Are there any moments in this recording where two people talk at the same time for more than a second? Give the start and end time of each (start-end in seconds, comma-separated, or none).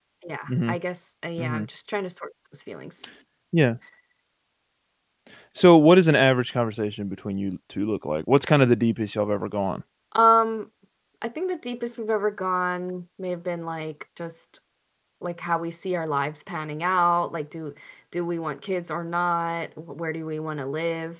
none